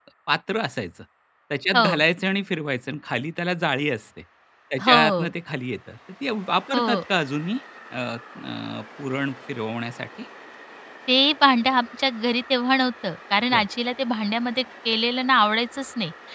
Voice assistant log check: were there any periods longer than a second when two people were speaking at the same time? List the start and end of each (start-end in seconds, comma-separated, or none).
none